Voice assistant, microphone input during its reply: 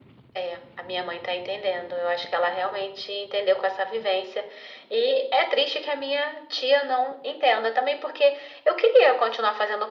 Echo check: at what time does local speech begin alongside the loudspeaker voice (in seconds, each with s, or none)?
none